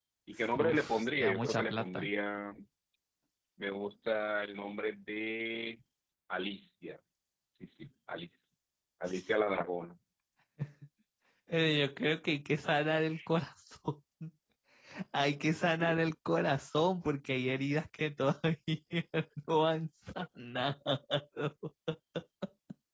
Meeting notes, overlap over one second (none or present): present